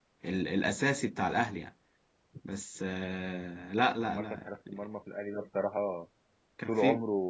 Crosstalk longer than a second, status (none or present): none